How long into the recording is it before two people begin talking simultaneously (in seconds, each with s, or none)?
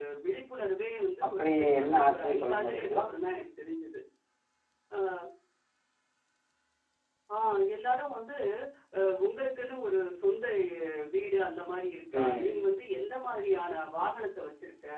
1.3 s